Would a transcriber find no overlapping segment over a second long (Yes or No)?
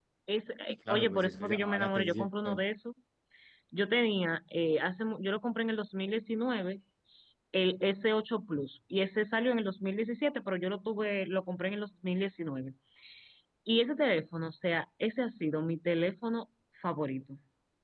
No